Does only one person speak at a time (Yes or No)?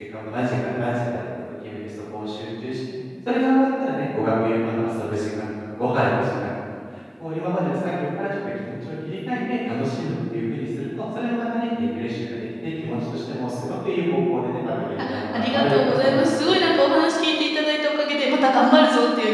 No